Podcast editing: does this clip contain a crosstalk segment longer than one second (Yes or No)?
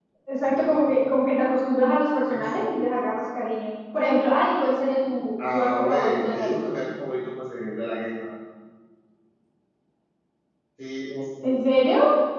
Yes